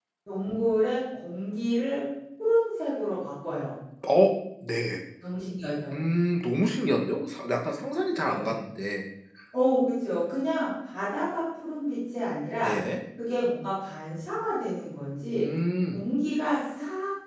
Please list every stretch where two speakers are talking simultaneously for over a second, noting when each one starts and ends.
none

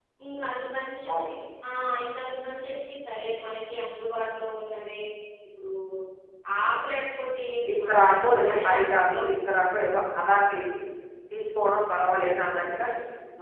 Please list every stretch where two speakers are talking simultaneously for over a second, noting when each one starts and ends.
7.7-9.2

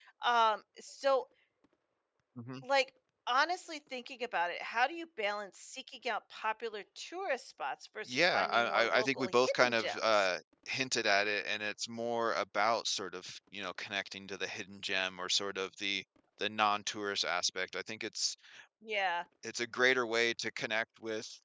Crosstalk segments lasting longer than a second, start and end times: 8.1-10.3

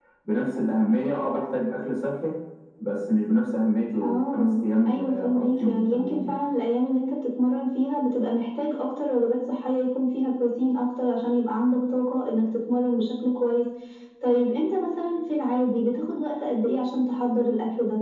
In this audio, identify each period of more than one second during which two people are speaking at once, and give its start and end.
4.0-6.4

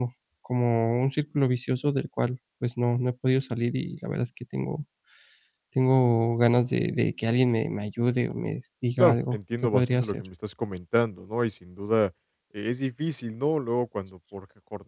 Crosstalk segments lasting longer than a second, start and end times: 9.0-10.2

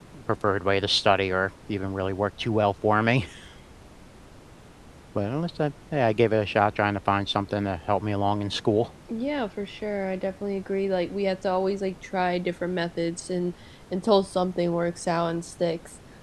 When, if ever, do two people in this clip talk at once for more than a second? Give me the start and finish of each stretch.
none

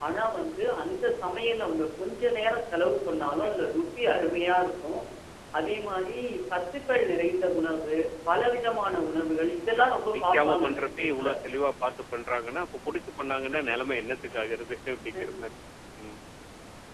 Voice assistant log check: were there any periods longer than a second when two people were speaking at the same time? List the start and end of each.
9.6-11.3

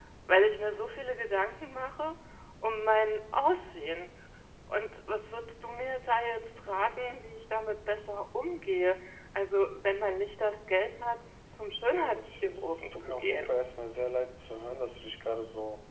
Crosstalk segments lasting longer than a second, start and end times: 12.0-13.5

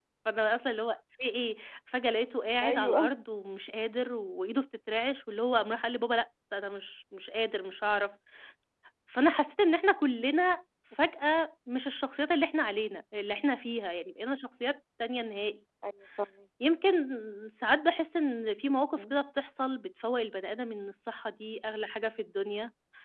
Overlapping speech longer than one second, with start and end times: none

